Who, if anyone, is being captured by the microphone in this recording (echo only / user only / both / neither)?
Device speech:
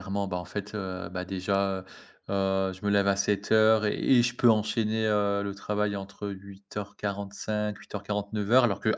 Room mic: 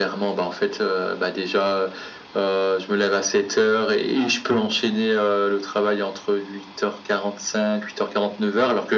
echo only